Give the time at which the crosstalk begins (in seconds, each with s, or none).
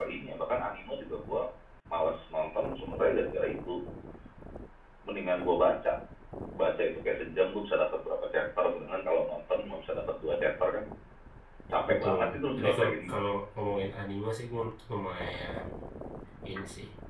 11.9 s